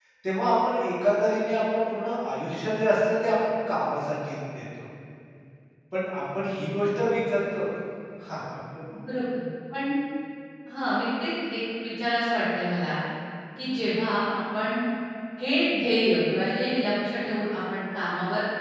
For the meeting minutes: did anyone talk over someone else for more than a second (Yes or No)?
No